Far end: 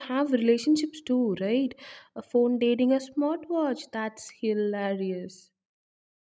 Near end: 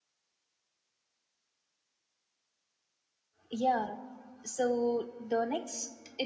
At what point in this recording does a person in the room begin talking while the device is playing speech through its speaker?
3.5 s

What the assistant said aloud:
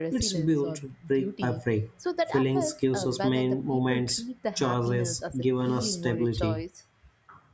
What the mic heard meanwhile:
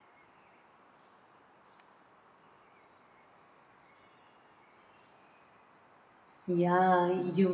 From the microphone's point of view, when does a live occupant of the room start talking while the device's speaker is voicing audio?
6.5 s

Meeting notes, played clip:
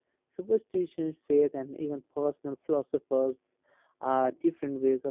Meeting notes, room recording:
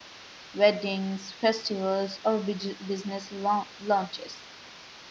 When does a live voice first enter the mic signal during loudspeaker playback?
0.5 s

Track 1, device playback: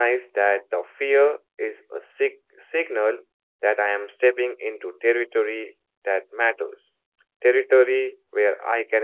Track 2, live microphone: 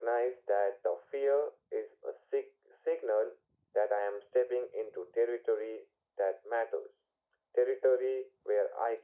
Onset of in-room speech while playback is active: none

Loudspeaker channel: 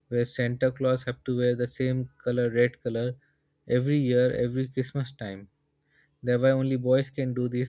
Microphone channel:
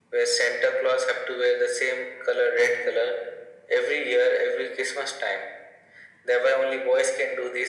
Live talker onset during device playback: none

